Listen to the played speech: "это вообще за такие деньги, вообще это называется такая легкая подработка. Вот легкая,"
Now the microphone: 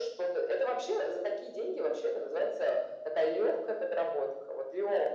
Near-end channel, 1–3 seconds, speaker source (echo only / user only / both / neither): echo only